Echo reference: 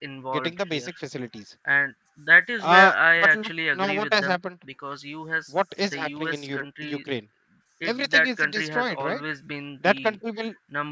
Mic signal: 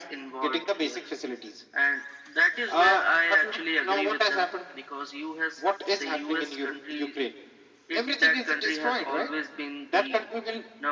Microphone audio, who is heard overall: echo only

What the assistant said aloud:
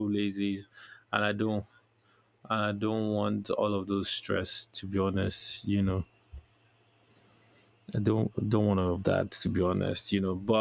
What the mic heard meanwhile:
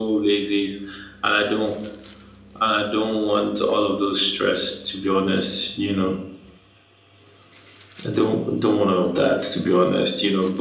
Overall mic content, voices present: echo only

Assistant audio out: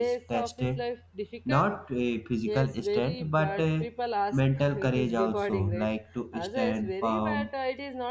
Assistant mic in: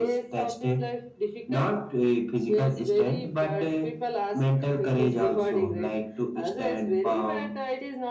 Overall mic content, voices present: echo only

